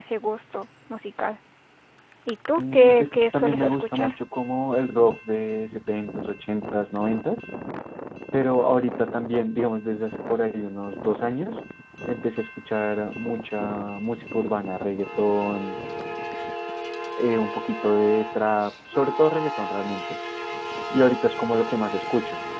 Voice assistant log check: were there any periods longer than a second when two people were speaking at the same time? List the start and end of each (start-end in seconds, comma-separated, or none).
2.6-4.1